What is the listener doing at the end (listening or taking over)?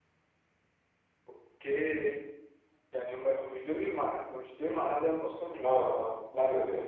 taking over